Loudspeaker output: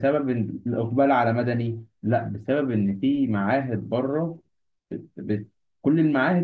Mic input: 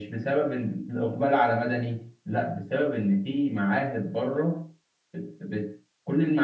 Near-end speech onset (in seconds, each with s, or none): none